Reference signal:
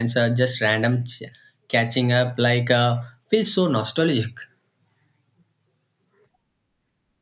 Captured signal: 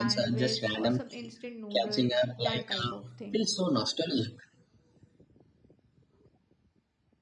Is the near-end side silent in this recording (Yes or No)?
No